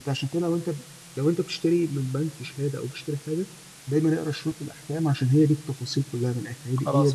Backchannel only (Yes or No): No